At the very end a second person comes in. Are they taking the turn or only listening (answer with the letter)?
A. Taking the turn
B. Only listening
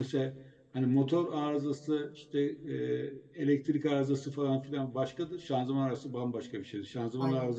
B